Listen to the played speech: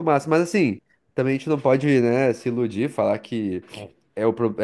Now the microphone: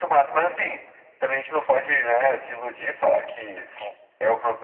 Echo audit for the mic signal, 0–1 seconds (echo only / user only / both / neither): echo only